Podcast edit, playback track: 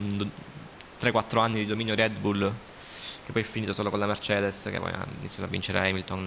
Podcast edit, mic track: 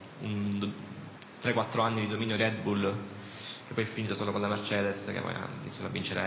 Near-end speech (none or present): none